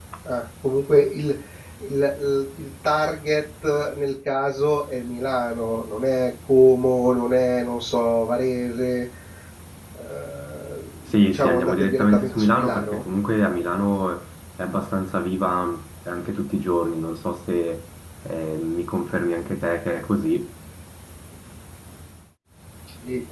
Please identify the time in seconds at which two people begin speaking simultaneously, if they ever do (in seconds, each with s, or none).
11.3 s